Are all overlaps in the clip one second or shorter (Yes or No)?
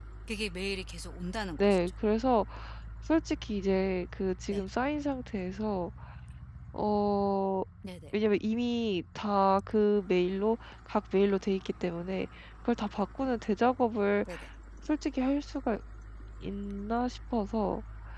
Yes